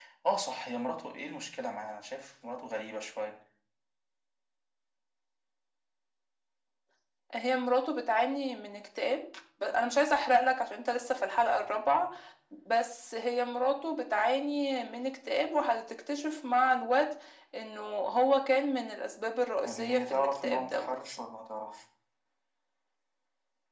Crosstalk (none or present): present